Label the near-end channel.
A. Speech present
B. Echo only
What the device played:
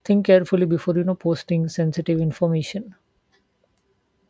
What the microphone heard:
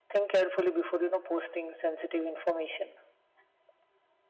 B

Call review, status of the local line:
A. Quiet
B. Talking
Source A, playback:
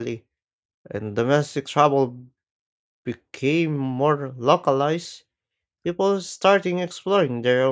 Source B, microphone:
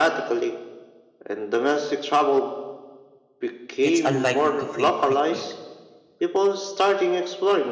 B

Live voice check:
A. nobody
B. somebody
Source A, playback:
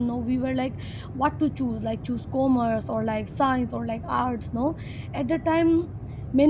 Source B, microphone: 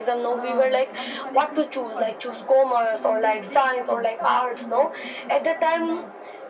B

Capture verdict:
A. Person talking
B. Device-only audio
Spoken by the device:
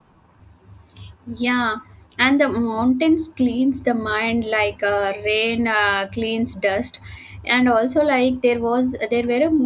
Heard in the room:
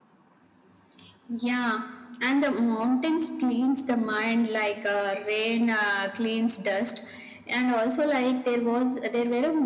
B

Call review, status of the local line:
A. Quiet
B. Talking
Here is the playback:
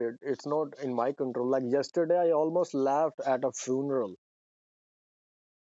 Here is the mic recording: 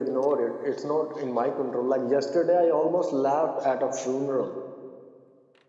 A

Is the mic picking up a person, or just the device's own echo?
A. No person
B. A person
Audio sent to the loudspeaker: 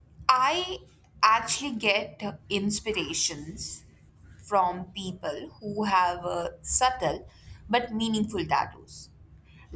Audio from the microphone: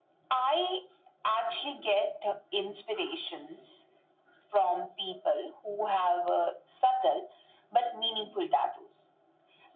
A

